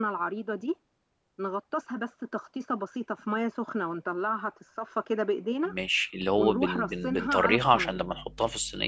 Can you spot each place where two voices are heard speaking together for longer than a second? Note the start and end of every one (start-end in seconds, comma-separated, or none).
6.4-8.0